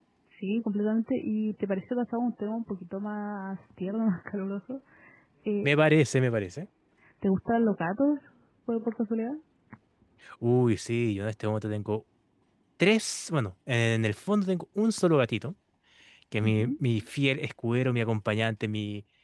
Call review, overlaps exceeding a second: none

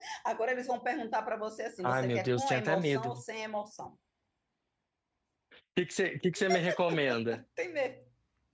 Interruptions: present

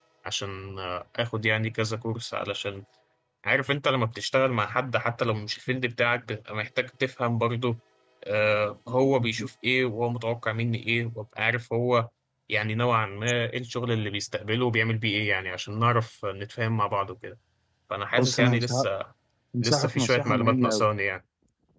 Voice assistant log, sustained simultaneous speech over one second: present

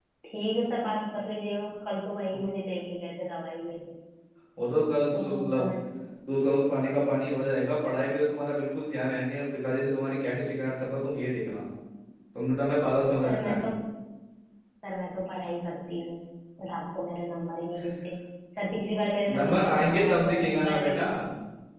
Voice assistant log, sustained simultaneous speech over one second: present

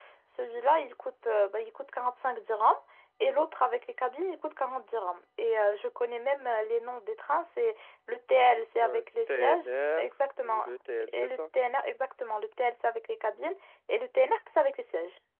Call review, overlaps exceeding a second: present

